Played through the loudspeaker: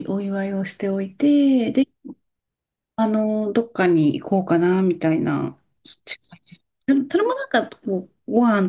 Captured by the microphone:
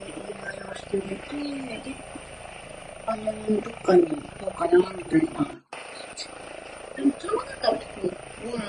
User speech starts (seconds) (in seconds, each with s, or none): none